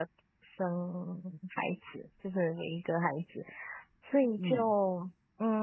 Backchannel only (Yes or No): Yes